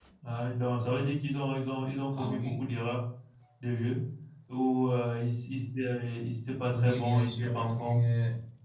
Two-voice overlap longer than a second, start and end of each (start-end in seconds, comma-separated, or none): 6.7-8.0